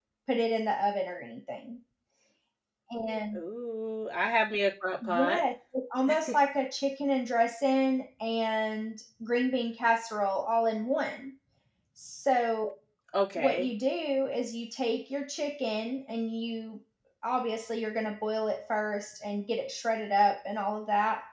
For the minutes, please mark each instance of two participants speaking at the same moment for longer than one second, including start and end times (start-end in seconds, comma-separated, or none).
none